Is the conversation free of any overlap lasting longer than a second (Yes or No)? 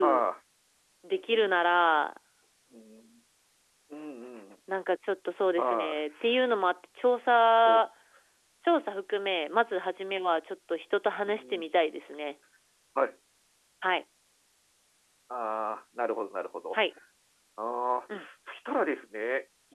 Yes